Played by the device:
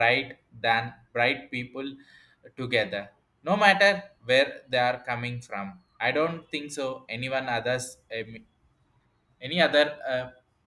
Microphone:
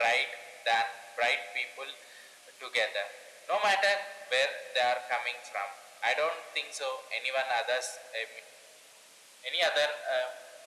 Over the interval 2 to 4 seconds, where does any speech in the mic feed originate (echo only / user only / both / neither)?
echo only